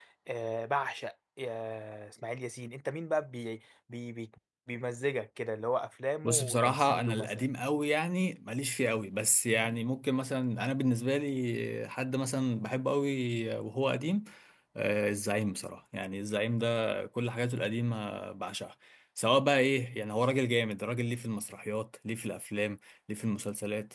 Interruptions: present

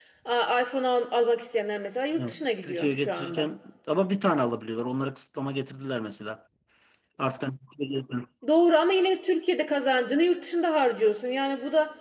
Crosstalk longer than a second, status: present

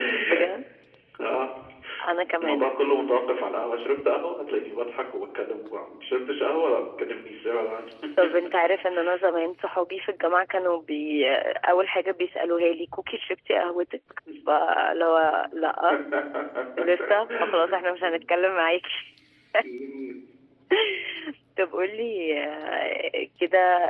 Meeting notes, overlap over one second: none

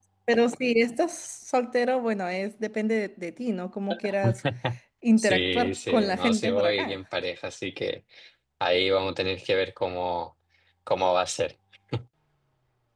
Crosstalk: present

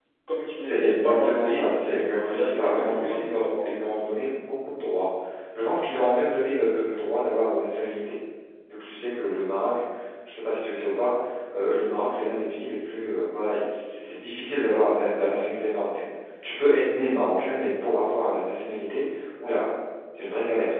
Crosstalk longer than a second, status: present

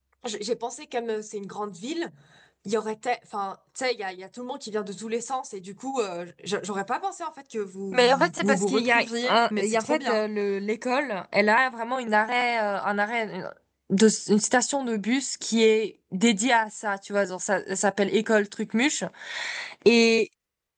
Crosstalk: present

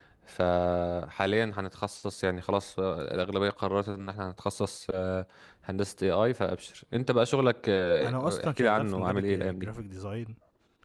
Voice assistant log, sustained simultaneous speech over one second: present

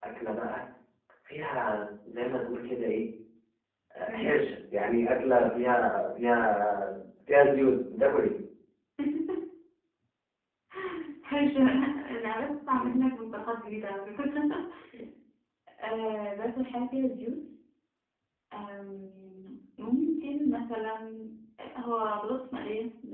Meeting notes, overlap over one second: none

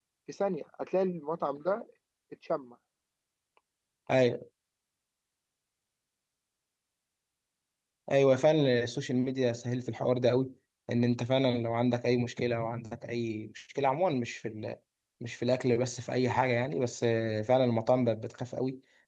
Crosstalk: none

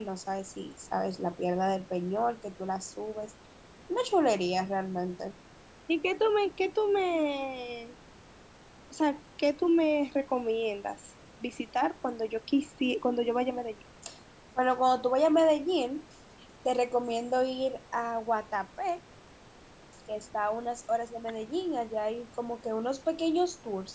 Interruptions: none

